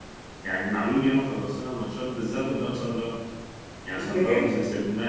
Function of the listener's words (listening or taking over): listening